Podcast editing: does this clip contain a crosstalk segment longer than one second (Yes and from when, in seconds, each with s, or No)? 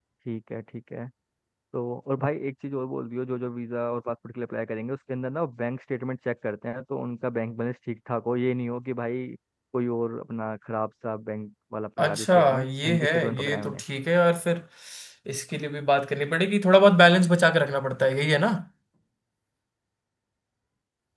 Yes, from 12.0 s